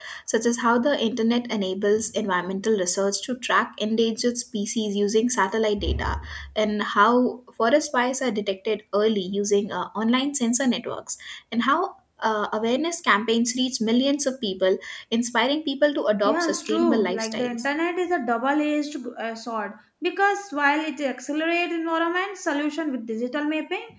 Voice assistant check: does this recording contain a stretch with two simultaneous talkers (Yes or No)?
Yes